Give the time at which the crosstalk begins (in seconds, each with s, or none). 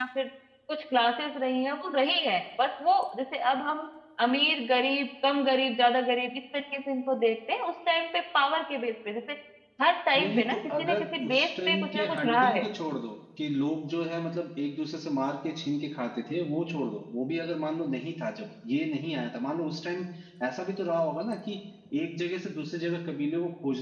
10.2 s